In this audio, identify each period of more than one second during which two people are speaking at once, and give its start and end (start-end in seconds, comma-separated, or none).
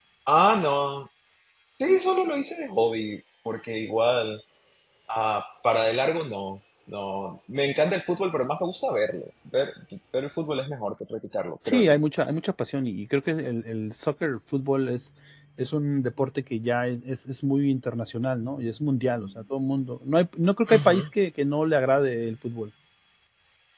none